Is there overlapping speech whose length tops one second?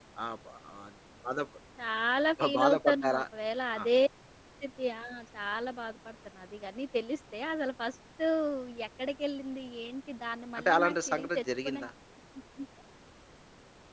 Yes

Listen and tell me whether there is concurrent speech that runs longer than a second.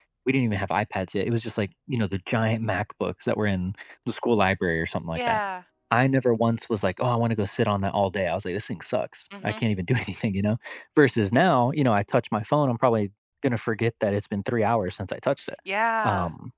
No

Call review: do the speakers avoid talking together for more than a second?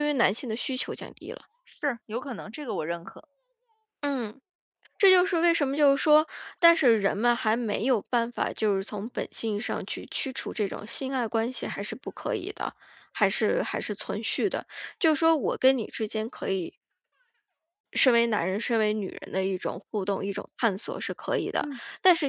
Yes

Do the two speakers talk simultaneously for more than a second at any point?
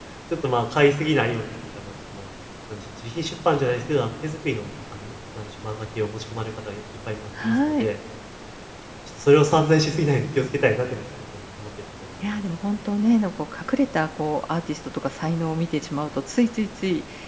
No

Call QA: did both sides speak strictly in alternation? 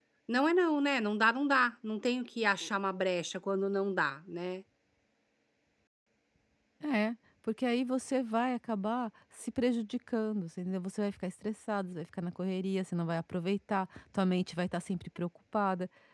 Yes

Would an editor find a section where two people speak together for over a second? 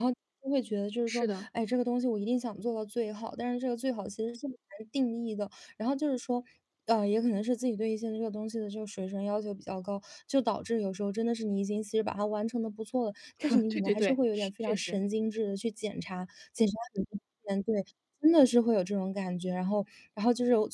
Yes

